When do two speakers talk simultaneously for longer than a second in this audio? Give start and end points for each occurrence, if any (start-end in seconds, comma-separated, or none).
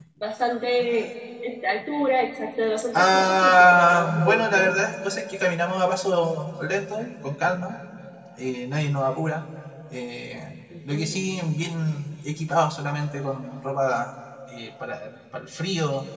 2.9-4.6